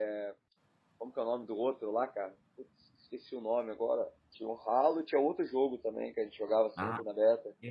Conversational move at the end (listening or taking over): taking over